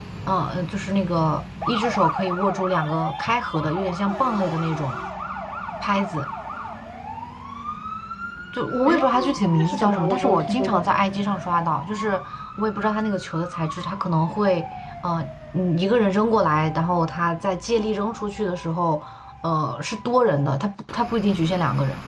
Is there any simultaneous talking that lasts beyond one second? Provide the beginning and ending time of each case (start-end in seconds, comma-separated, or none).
8.9-11.0